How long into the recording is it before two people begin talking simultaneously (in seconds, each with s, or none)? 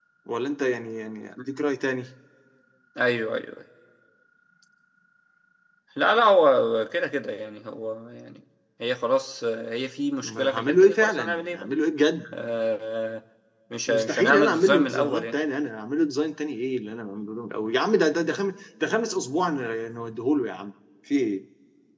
10.2 s